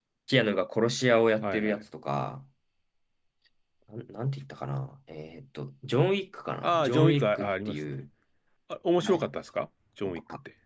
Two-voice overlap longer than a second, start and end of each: 6.6-8.0

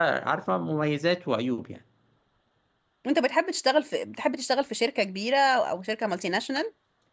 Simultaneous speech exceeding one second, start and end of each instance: none

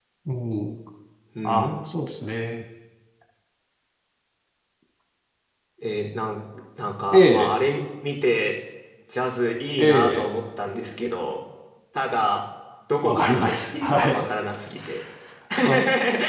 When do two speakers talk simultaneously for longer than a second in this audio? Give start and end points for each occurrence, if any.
13.0-14.2

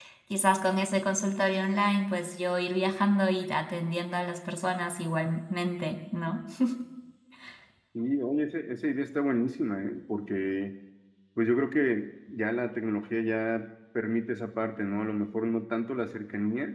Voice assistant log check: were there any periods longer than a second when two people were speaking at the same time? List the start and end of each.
none

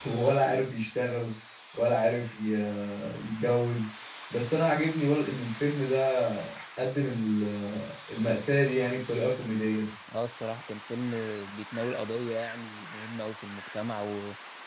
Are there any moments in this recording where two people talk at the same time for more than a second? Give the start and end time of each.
none

